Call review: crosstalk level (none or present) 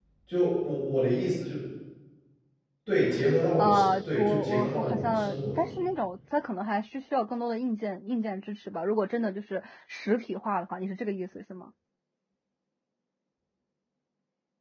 present